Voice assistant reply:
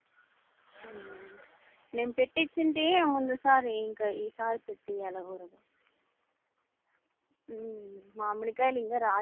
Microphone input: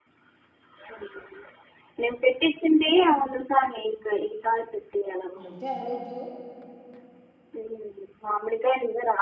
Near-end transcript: అంటే ఆ రోజు

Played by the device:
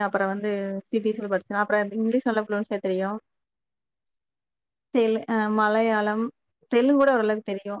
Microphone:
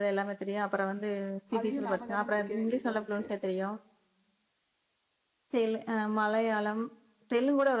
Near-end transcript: அதையு நாம தானே முடிக்க வேண்டிய இதா இருக்கு

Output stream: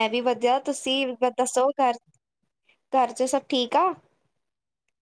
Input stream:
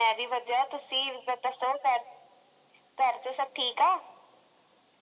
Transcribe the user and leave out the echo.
none

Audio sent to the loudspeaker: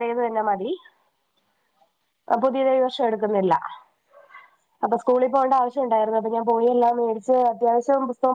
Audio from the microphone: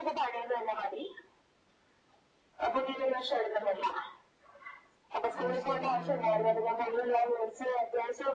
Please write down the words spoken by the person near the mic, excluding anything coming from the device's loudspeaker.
അത് ശെരി ആഹ് ആഹ്

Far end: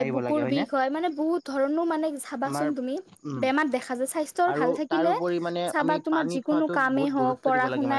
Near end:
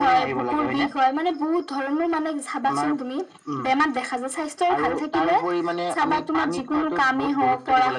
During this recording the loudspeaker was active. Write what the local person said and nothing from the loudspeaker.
none

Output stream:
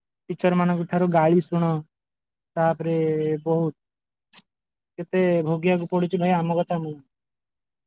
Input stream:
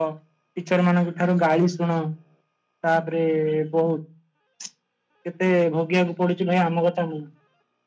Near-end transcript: none

